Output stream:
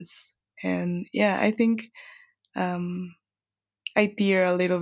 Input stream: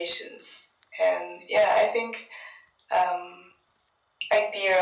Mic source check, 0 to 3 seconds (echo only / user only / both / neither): echo only